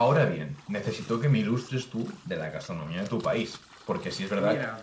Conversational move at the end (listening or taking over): listening